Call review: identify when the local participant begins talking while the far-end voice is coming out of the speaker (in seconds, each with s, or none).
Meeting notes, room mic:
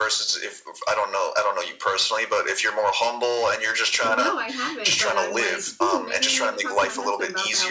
4.0 s